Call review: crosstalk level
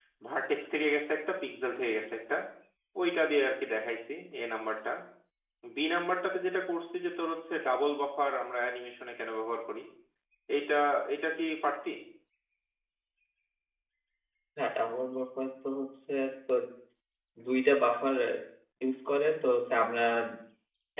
none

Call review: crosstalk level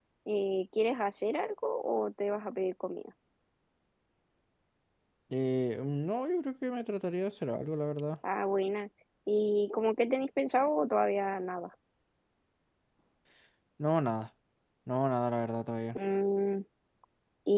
none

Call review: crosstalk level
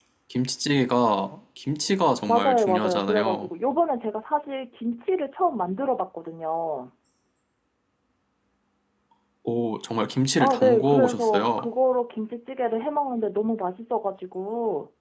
present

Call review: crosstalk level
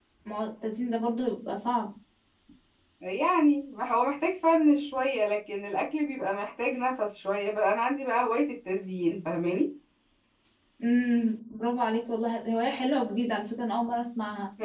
none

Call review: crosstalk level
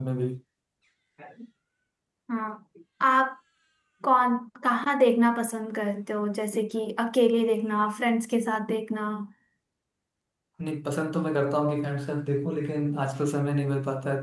none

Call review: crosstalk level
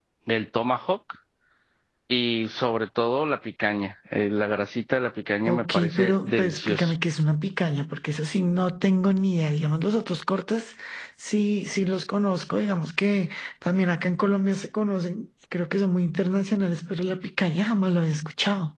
present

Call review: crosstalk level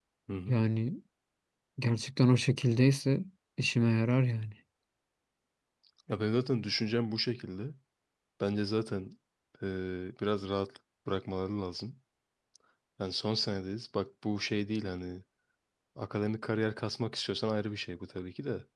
none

